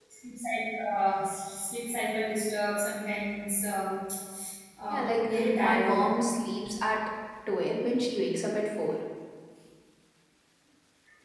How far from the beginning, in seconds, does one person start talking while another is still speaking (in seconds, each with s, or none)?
4.9 s